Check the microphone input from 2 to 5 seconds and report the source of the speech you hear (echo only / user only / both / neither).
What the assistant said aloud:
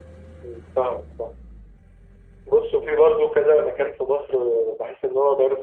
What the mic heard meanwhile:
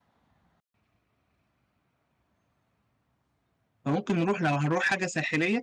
user only